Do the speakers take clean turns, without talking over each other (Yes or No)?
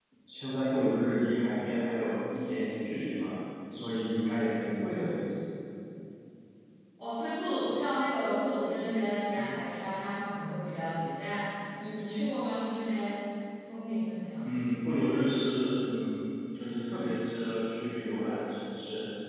Yes